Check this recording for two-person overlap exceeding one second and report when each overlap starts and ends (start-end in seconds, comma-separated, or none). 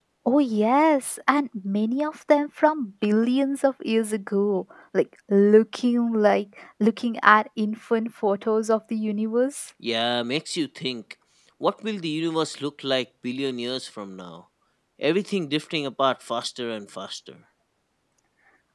none